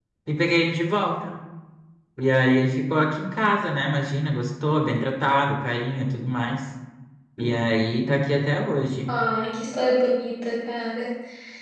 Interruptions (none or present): none